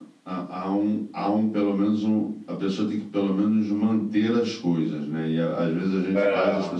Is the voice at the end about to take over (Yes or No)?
No